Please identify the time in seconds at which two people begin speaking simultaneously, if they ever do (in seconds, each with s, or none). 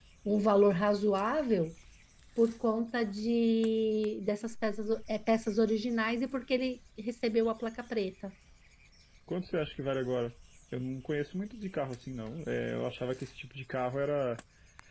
none